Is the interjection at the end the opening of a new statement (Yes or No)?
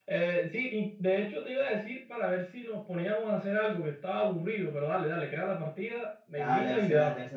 Yes